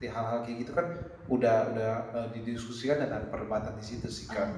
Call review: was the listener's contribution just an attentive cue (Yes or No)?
No